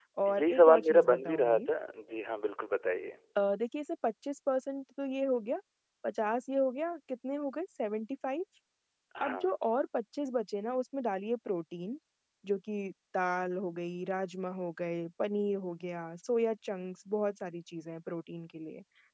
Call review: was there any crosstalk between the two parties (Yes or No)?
Yes